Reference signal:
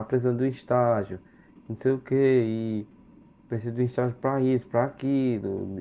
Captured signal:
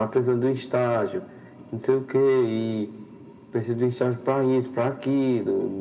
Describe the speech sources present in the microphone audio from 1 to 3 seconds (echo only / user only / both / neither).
echo only